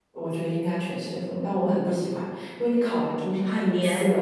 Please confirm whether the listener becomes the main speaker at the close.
No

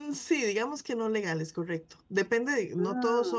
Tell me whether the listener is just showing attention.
Yes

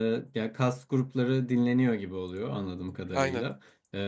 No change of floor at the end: Yes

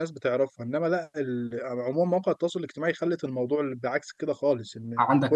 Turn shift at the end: Yes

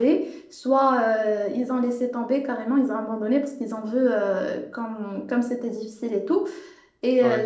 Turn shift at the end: No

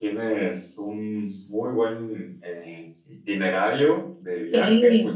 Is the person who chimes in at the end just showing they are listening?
Yes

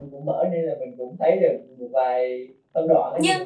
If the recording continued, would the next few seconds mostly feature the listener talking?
Yes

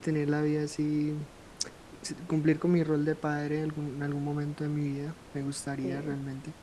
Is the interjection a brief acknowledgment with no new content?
Yes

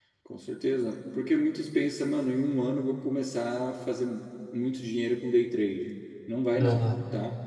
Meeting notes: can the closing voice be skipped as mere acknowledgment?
Yes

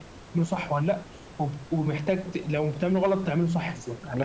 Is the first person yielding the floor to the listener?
Yes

